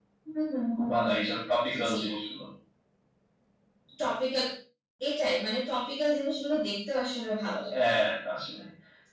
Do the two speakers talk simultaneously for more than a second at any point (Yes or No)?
No